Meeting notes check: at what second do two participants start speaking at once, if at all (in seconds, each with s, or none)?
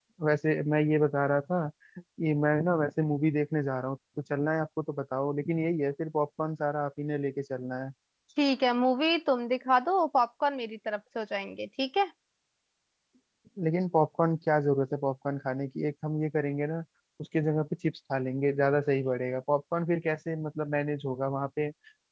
none